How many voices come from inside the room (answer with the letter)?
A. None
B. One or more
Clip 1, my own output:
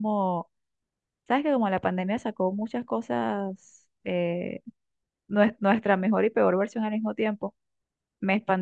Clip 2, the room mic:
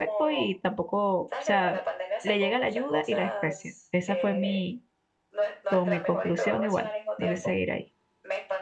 B